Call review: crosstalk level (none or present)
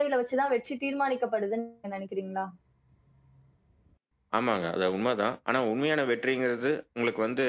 none